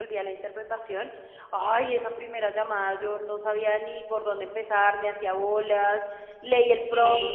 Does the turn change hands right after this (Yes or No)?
No